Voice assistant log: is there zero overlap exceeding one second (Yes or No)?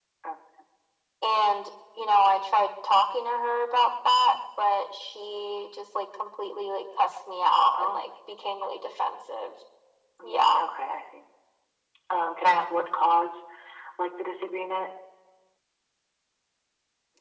Yes